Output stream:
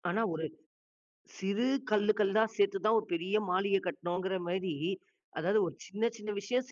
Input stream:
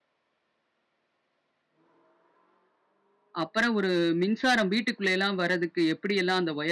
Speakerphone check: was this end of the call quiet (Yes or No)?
No